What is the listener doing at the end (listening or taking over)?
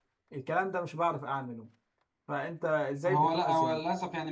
taking over